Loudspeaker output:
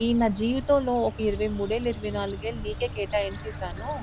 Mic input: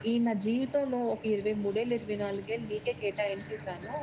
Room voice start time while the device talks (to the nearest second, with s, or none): none